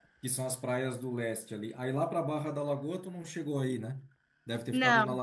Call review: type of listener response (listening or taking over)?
listening